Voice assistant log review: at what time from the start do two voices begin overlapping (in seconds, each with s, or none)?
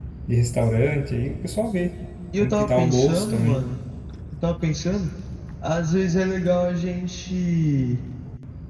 2.3 s